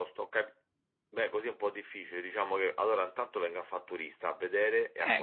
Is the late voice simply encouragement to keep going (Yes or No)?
No